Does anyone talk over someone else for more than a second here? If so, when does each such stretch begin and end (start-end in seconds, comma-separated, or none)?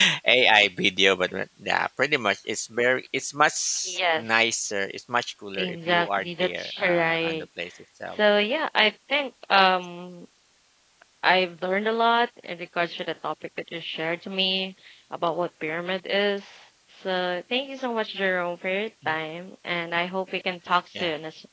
5.5-7.4